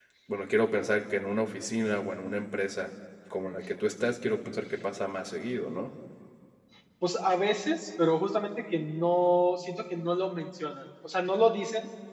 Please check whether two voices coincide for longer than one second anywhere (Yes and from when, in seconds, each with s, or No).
No